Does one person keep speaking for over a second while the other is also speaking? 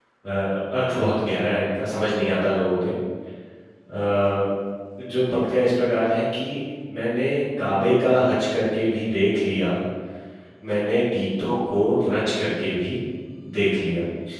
No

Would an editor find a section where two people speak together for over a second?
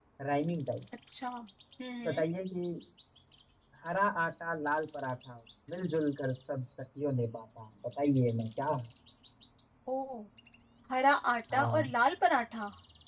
No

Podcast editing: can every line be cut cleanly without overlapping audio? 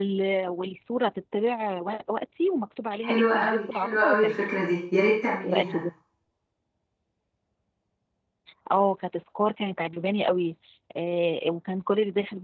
No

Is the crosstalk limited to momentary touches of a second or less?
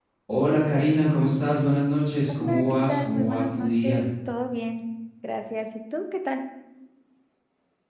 No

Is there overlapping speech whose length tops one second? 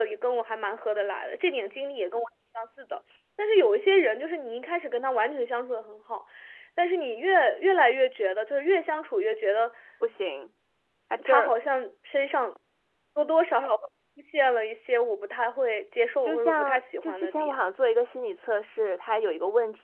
Yes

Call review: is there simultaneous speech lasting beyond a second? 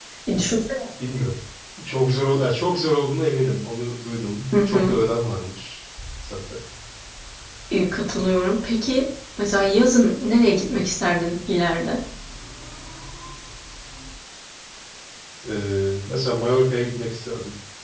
No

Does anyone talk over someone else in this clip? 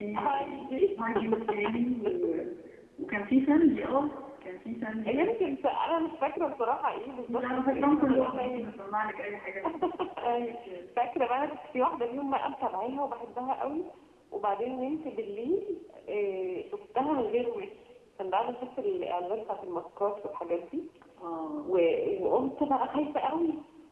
Yes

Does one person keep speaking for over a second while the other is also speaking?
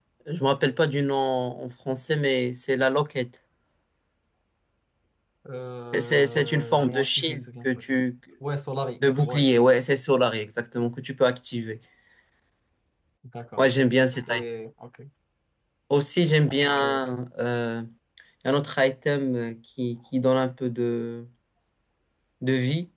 Yes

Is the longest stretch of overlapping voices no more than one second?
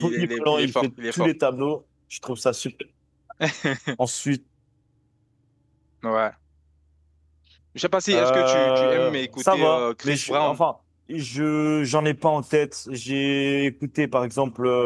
No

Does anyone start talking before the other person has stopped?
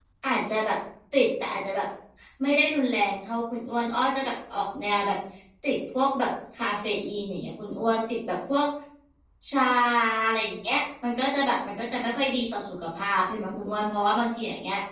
No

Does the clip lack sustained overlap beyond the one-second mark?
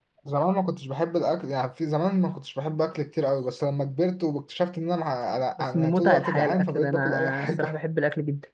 No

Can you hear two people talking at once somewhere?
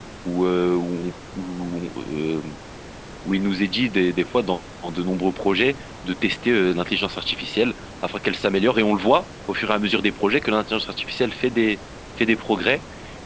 No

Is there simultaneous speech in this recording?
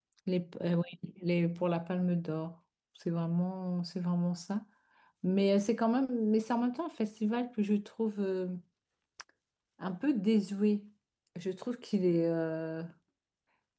No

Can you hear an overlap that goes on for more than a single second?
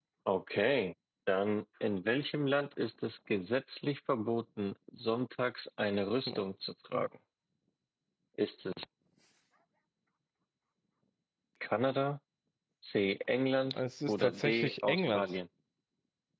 Yes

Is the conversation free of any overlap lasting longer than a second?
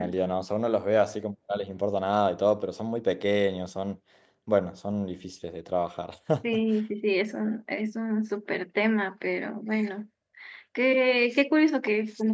Yes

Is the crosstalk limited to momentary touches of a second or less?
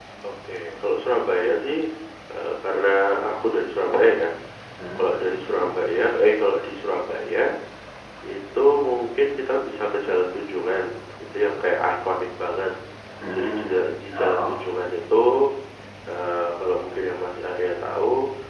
No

